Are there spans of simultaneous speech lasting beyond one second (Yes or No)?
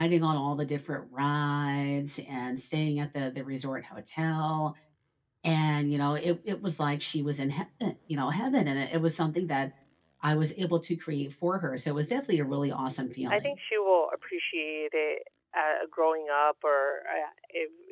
No